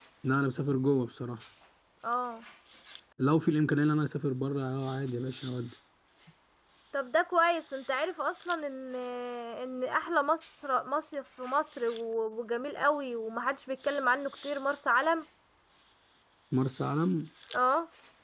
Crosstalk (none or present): none